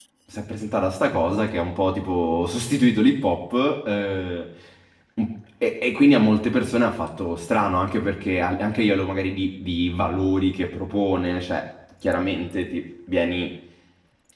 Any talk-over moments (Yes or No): No